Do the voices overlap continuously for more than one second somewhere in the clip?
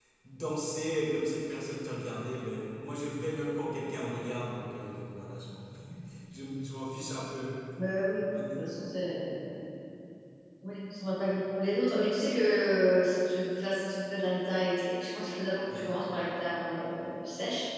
No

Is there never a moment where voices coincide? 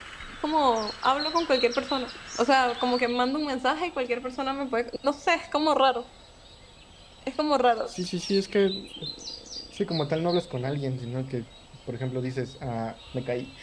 Yes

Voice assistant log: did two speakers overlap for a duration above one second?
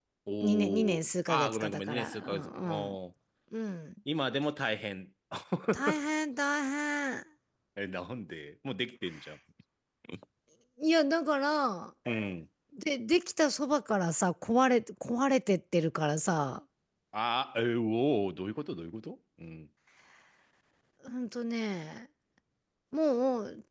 Yes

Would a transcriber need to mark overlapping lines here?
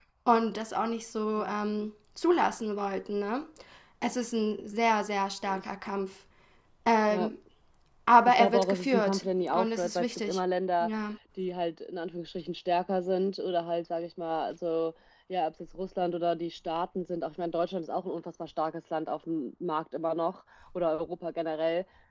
Yes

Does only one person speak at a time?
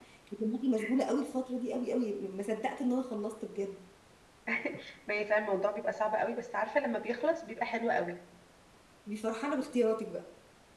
Yes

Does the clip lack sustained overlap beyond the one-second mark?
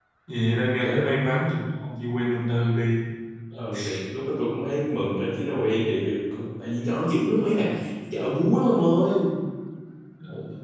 Yes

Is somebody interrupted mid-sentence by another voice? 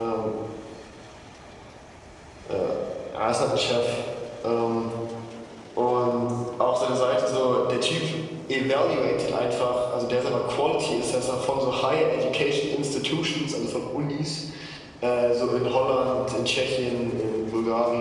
No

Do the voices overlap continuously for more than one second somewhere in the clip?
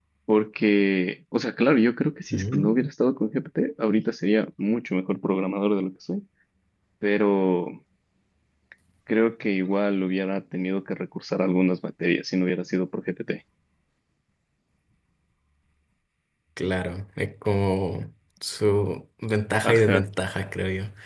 No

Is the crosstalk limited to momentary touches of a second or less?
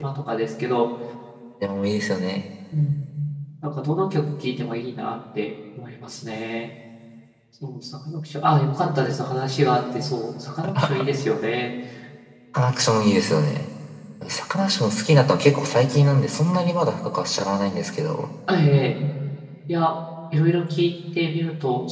Yes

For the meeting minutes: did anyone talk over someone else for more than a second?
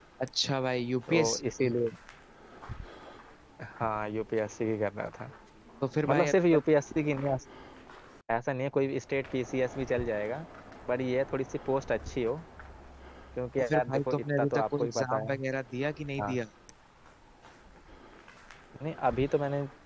Yes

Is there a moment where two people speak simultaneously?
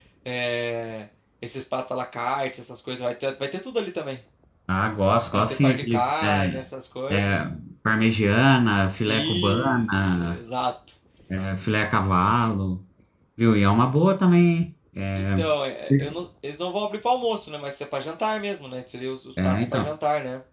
Yes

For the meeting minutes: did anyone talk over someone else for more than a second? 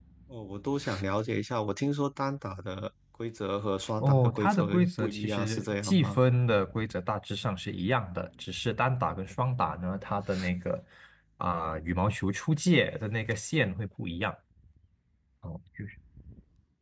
Yes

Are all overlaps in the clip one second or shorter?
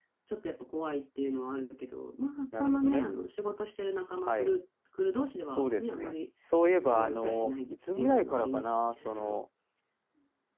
No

